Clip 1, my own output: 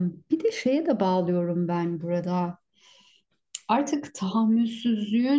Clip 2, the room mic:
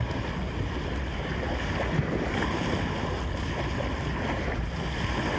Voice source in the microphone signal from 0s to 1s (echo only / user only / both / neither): neither